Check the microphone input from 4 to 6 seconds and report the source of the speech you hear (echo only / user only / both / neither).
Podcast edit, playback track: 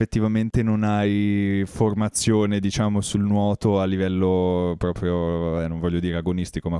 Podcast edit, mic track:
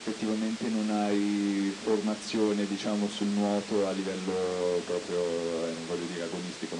echo only